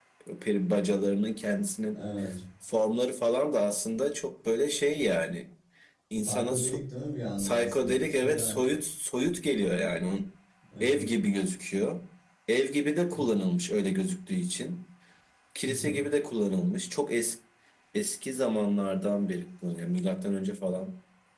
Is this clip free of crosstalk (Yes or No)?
No